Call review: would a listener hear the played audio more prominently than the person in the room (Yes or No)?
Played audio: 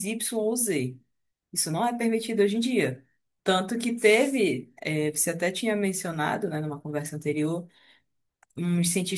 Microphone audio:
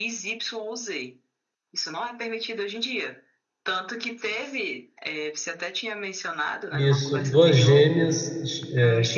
No